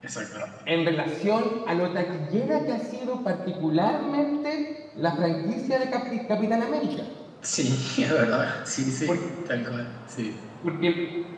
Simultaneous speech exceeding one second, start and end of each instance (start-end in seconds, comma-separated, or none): none